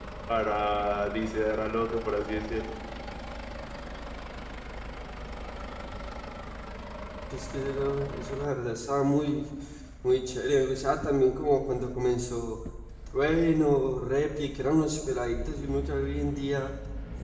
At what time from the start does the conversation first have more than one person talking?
none

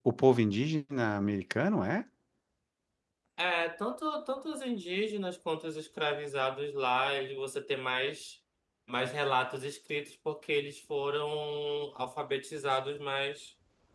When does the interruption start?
none

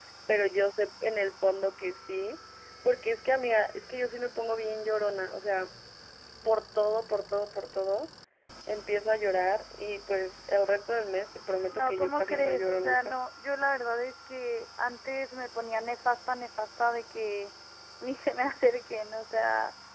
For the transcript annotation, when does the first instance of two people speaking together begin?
11.7 s

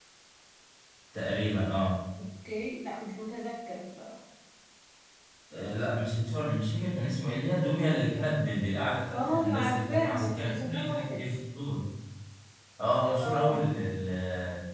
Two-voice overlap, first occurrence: 9.1 s

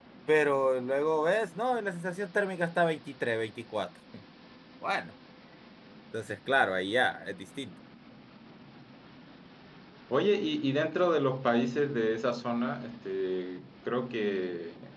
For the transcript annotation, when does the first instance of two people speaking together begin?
none

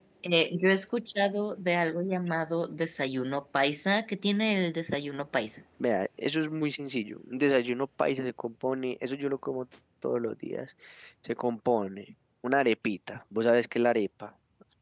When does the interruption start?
none

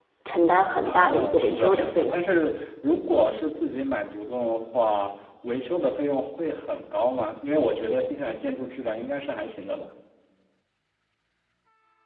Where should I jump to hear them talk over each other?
0.8 s

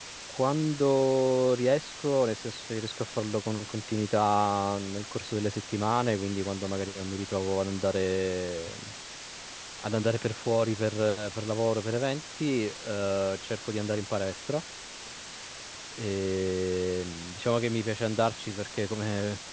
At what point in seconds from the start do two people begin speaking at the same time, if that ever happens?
none

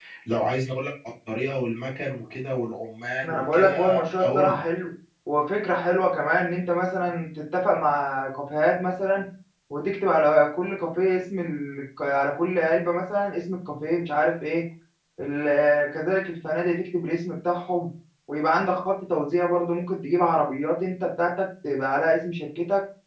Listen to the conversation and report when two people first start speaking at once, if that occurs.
3.2 s

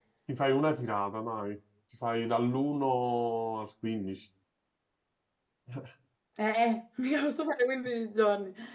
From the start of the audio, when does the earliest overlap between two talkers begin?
none

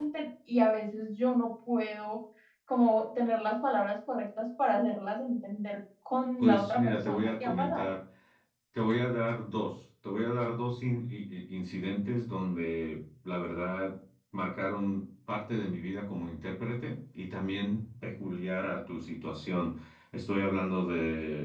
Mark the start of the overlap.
6.4 s

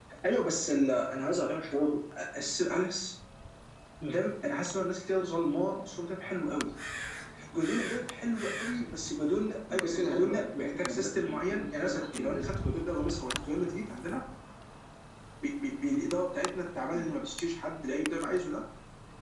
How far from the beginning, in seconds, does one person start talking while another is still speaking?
9.7 s

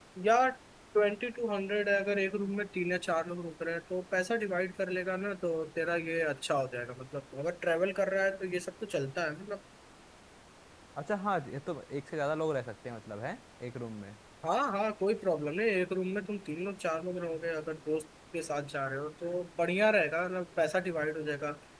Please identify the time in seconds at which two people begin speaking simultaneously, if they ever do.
none

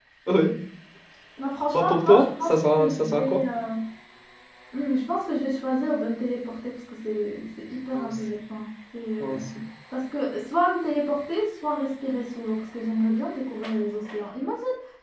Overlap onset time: 1.7 s

